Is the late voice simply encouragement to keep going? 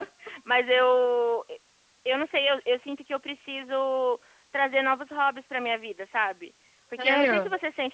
Yes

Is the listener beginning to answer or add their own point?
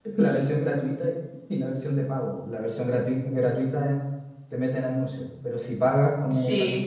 No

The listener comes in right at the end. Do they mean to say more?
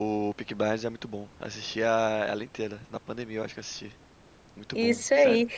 Yes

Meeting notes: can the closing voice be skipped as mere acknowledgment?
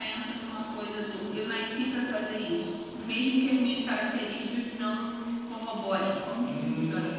No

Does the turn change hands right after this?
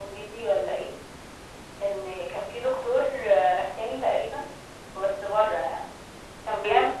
No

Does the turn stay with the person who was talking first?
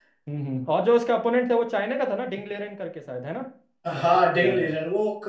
No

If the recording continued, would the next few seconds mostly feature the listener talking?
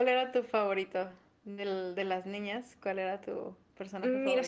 Yes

